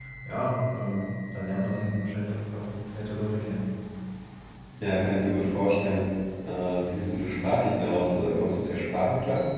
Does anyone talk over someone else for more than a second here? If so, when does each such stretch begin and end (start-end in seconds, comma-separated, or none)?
none